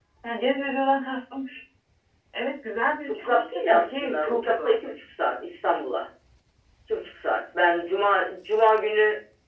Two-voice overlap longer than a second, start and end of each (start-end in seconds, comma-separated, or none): 3.0-4.8